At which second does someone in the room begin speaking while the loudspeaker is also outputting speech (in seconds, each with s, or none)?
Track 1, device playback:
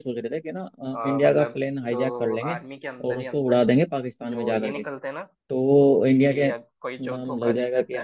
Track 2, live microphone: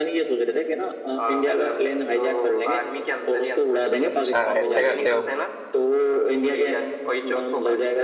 4.1 s